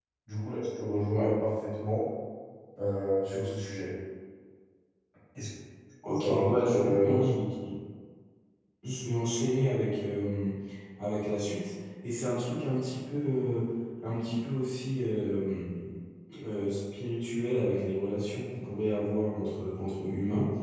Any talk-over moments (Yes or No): Yes